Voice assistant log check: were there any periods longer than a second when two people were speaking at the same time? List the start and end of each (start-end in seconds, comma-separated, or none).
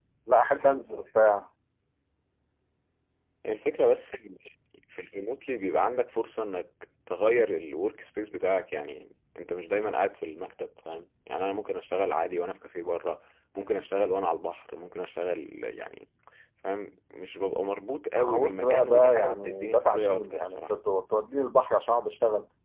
18.2-20.7